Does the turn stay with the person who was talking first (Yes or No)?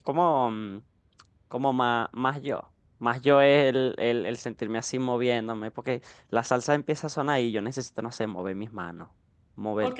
No